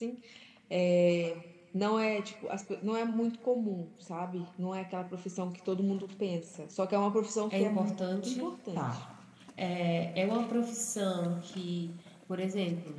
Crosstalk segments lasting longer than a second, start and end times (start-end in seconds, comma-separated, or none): 7.5-9.0